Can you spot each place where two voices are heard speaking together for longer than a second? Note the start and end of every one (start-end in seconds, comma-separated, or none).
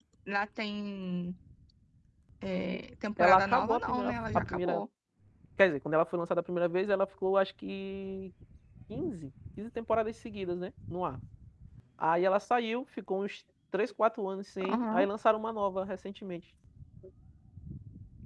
3.2-4.8